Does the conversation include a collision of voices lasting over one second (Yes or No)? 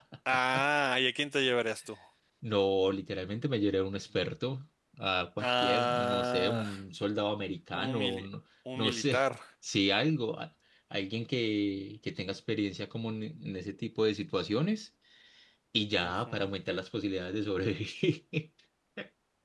Yes